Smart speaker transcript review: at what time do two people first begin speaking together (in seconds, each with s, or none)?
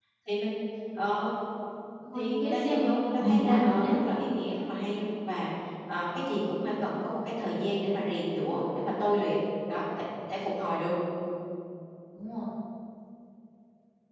2.1 s